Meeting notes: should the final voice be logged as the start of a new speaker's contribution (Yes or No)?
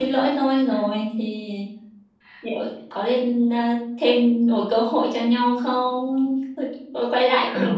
No